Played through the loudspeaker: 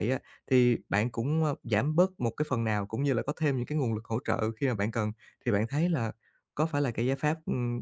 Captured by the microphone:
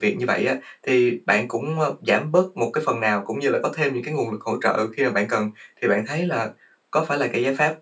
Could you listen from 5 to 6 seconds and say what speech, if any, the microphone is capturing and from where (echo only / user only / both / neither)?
echo only